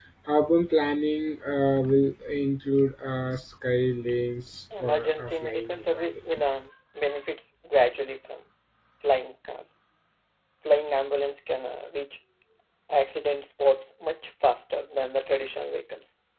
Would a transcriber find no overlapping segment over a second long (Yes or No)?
No